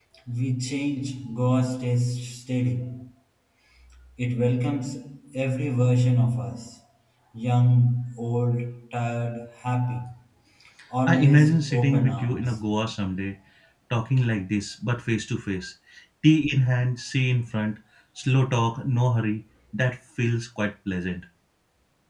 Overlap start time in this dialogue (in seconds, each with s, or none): 11.1 s